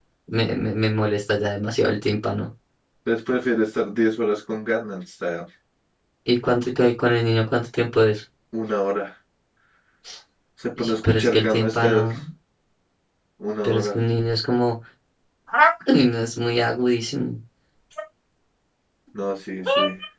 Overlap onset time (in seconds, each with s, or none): 10.8 s